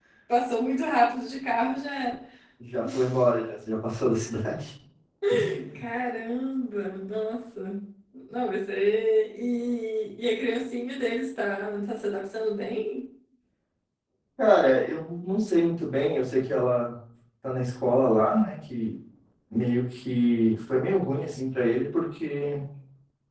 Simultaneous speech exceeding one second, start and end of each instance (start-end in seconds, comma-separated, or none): none